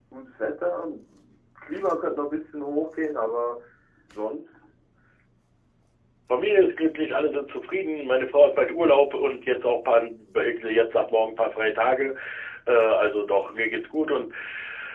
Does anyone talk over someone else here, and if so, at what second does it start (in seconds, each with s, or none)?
none